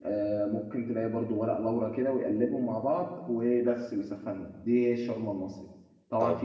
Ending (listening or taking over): listening